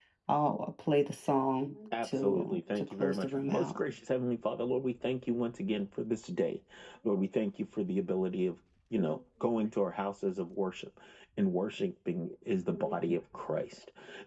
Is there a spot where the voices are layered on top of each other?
Yes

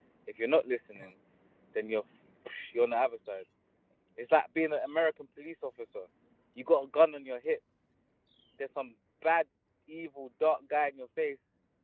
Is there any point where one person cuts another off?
No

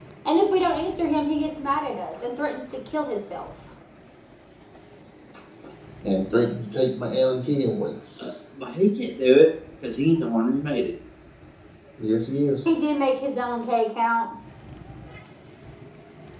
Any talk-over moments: No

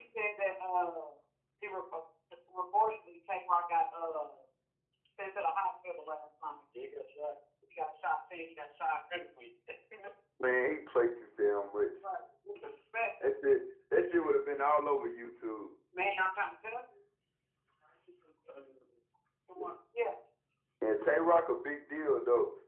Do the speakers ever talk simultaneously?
No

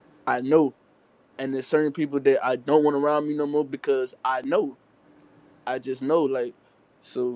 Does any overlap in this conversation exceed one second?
No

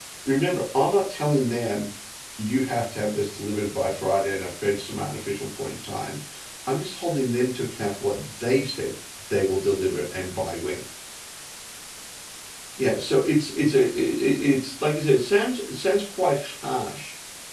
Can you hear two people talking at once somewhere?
No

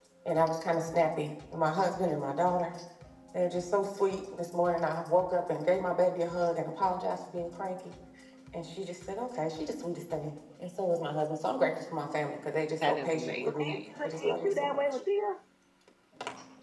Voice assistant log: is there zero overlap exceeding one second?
No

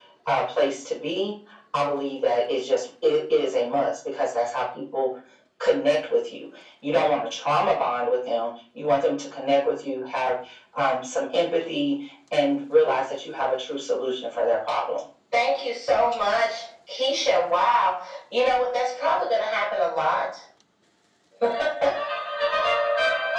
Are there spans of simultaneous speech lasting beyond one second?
No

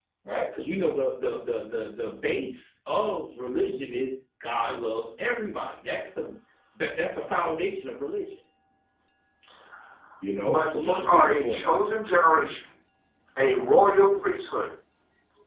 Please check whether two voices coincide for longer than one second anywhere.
Yes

